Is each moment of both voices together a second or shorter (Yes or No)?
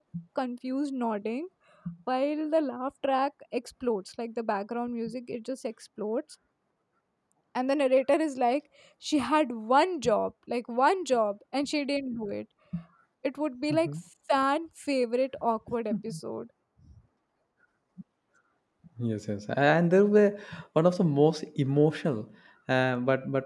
Yes